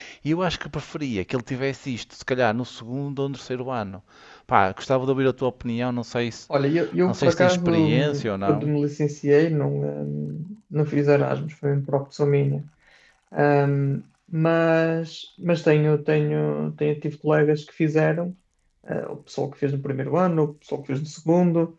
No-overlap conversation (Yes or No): No